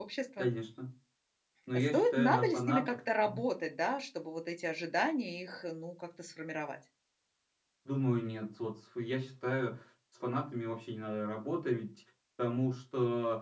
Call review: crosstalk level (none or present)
present